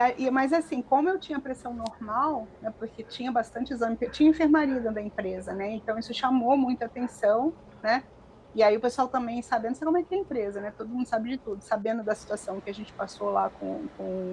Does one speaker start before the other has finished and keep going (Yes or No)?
No